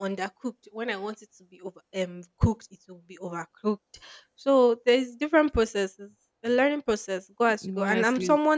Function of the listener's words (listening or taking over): listening